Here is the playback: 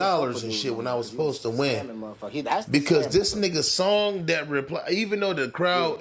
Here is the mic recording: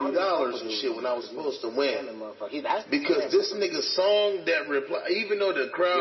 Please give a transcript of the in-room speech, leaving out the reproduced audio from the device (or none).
none